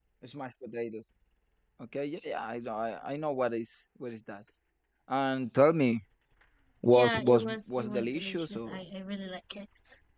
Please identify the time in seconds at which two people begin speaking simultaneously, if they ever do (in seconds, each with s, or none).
6.9 s